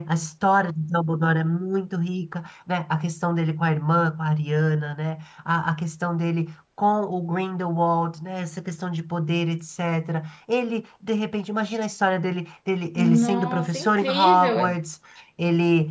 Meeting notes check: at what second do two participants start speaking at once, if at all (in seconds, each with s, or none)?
13.0 s